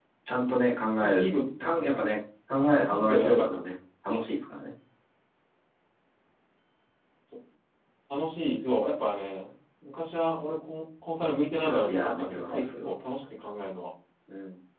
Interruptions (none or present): present